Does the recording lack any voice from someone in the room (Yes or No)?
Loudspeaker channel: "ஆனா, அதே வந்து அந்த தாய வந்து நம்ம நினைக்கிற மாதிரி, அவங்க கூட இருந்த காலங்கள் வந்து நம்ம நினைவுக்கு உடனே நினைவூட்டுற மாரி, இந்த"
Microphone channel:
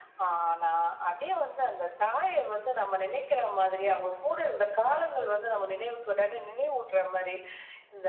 Yes